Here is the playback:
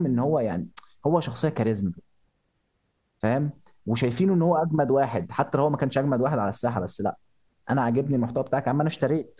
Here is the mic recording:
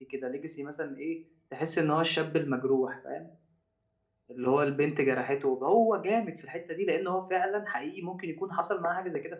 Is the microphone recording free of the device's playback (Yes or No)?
Yes